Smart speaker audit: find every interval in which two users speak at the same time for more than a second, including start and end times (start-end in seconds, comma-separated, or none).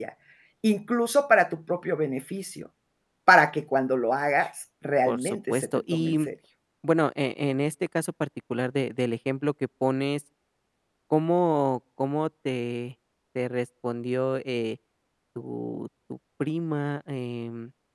5.1-6.3